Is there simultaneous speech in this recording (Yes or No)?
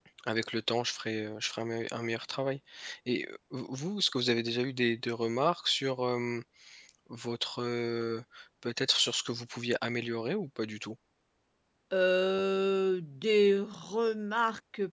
No